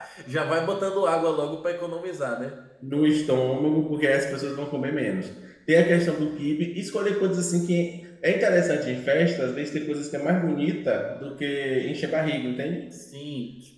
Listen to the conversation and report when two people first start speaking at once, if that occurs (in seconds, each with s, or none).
none